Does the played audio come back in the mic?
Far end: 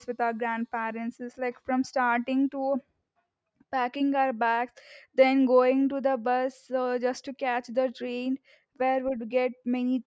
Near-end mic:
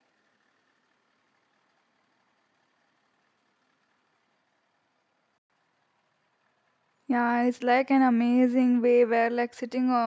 No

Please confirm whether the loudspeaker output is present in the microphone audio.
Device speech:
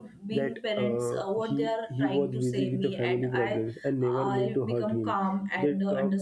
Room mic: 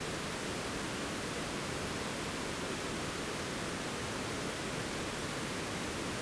No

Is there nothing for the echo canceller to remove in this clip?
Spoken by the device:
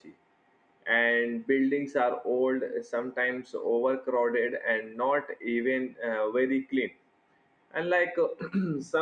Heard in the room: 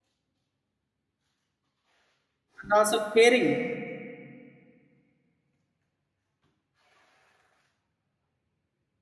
Yes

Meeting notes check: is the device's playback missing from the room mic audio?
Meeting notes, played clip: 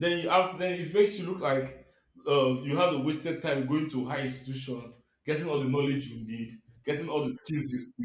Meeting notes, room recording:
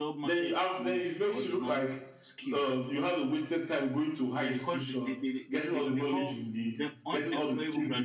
No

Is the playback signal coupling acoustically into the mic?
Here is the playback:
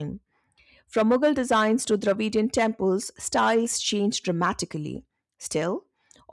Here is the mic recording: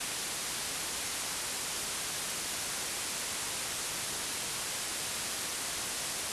No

